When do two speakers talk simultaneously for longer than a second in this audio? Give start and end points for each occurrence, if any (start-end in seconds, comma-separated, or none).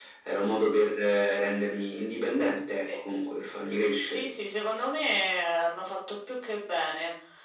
none